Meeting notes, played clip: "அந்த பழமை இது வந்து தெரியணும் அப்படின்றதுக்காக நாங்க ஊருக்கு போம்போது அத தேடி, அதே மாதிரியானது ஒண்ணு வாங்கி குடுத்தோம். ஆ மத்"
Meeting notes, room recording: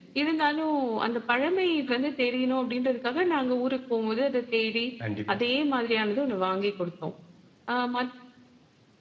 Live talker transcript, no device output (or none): கண்டிப்பா.